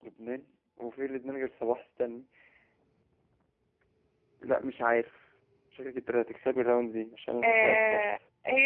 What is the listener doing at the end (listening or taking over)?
taking over